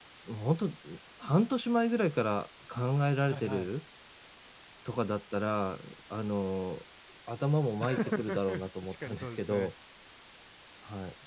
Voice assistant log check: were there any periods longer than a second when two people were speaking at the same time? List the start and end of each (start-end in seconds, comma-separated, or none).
7.8-9.7